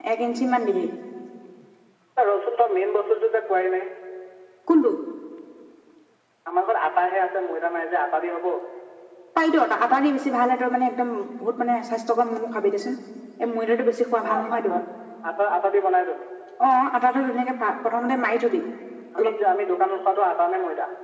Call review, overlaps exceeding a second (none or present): none